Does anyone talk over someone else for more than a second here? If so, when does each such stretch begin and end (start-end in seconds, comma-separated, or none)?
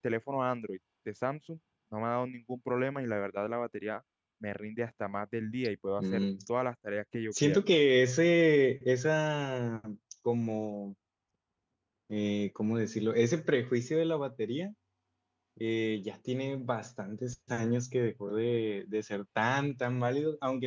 none